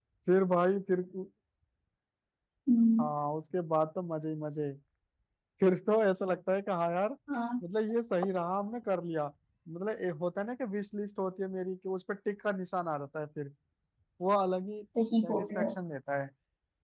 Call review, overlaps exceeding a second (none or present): none